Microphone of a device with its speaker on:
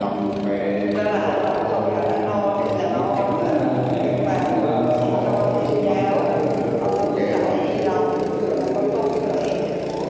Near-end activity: present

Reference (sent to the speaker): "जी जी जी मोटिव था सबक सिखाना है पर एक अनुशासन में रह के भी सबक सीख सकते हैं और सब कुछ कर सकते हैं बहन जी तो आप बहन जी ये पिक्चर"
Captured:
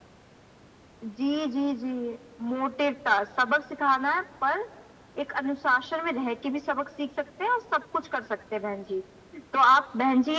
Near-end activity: none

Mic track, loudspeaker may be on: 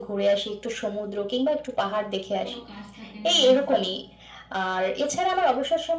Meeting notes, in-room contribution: present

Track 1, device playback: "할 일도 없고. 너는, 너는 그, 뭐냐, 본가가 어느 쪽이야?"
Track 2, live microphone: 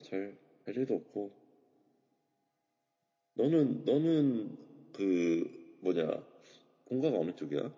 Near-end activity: none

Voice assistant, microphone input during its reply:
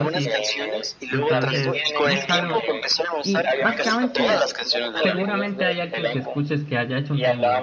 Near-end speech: present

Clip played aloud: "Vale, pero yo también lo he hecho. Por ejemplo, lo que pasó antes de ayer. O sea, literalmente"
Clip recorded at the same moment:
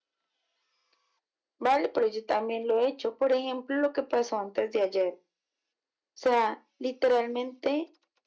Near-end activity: none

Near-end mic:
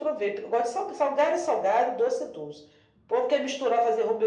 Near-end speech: none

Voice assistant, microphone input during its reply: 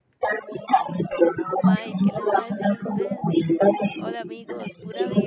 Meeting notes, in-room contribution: present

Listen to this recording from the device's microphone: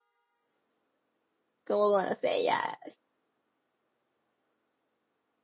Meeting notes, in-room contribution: present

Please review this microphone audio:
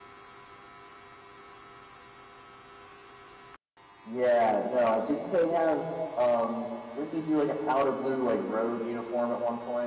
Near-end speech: present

